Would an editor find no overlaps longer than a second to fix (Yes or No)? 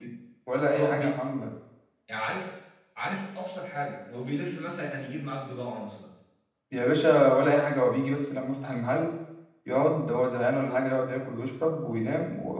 Yes